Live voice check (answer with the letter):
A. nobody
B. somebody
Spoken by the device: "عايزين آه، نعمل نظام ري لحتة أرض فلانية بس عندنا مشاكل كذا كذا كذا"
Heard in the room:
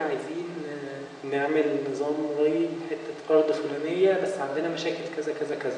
A